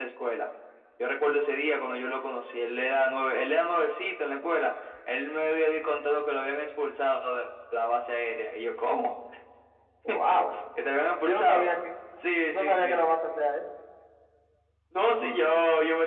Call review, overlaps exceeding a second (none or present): none